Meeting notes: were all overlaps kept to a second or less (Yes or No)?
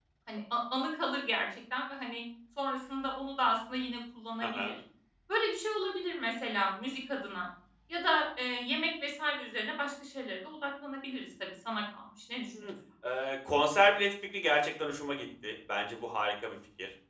Yes